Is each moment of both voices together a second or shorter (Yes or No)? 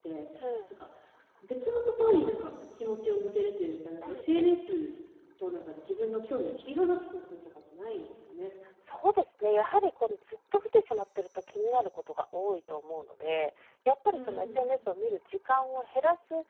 Yes